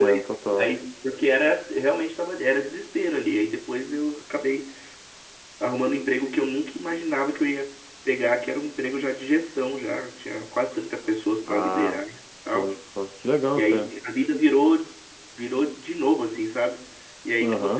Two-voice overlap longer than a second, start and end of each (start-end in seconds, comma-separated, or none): none